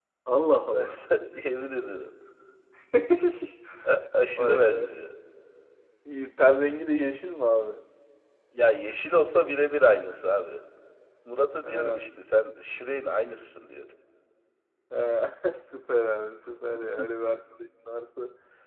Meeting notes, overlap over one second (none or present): none